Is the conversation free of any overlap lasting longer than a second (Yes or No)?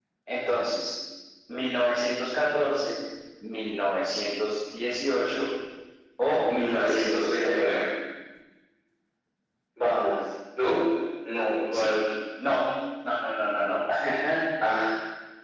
No